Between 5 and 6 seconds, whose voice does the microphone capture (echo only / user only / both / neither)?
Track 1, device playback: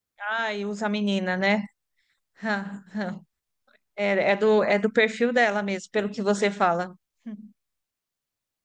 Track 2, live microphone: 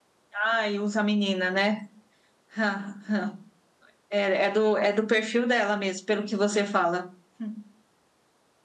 echo only